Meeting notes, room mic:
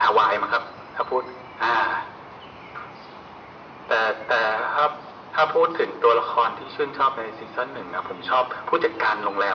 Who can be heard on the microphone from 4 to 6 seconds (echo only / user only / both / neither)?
echo only